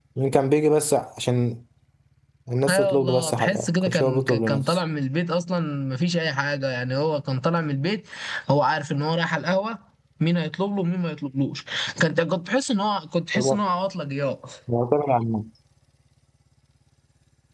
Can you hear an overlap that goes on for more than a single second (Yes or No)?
Yes